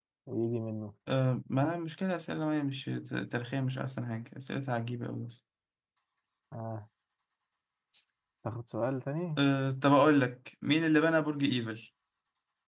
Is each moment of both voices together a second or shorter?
Yes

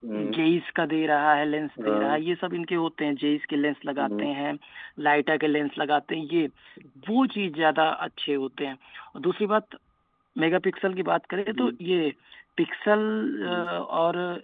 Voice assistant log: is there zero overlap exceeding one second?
Yes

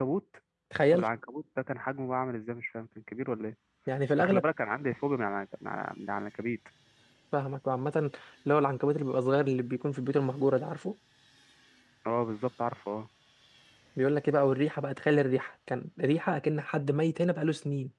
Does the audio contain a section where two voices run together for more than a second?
No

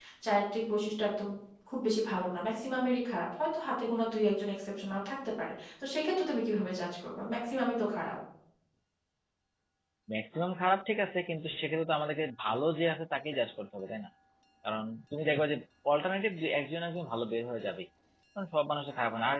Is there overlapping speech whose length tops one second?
No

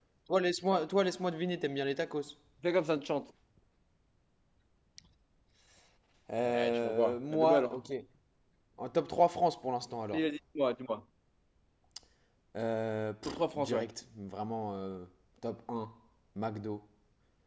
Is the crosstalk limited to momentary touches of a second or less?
No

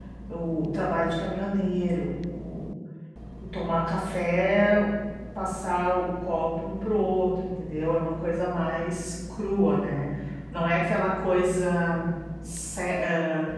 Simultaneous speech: No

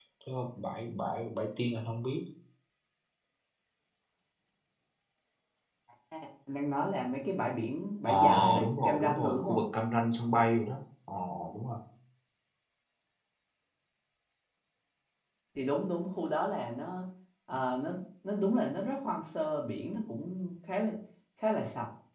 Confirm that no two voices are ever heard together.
No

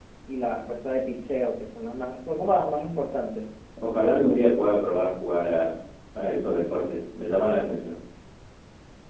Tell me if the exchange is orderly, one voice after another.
Yes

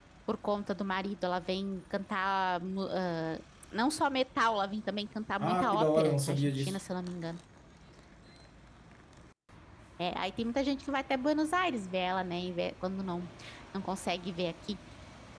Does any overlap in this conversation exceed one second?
Yes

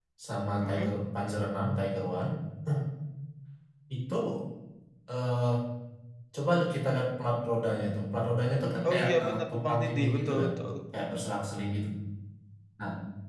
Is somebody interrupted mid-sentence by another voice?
Yes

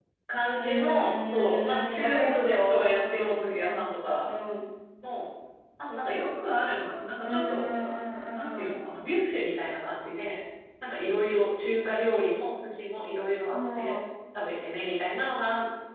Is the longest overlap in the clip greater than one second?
Yes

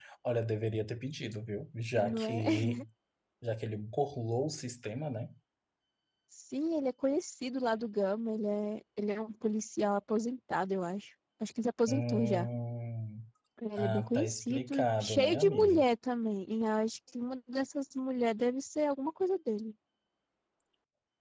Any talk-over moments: Yes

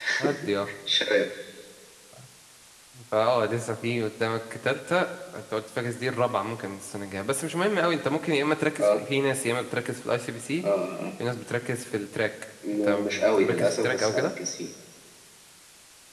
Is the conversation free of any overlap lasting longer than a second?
No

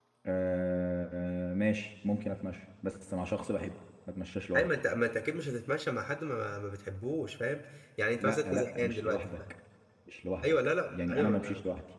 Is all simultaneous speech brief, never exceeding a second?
No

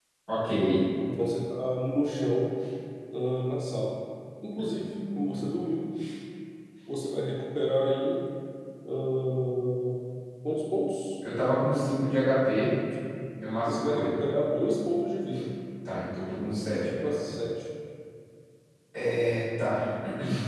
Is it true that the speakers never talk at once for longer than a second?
Yes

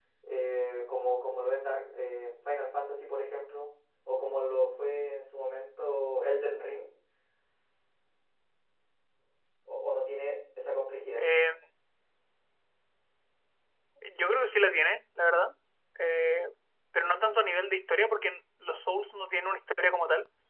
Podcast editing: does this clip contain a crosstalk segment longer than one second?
No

